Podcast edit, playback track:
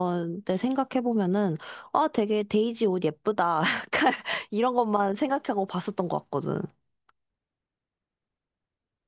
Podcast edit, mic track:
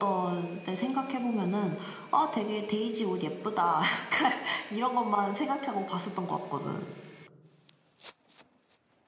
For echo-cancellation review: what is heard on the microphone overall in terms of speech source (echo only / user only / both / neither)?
echo only